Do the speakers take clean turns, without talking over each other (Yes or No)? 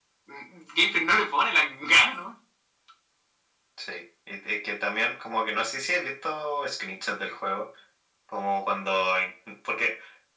Yes